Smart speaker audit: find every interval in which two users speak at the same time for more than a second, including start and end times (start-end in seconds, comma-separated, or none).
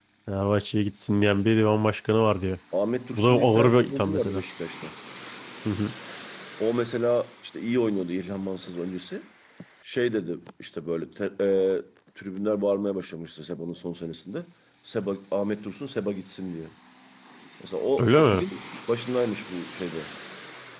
3.1-4.4